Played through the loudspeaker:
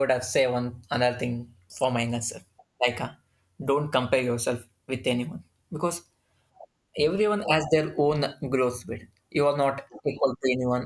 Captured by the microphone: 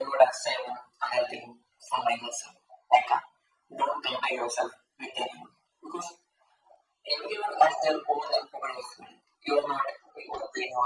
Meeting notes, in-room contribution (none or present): none